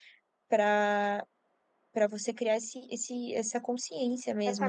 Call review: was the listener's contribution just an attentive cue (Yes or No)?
No